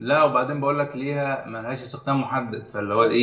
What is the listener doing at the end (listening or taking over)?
taking over